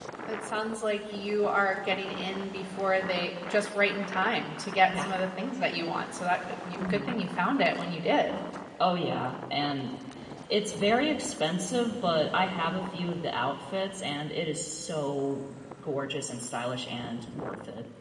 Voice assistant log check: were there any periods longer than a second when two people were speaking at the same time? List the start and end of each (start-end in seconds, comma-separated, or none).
none